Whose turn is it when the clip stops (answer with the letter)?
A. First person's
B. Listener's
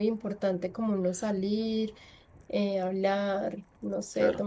B